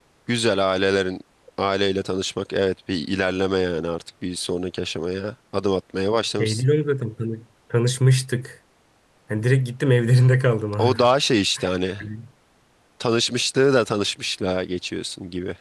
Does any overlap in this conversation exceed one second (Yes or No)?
No